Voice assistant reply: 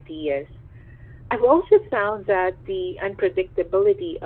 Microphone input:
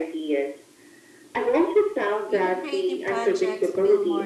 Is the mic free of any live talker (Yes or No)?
No